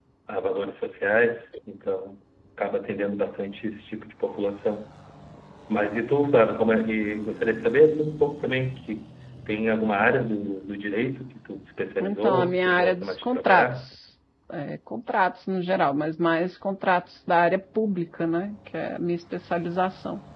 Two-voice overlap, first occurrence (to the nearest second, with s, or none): 12 s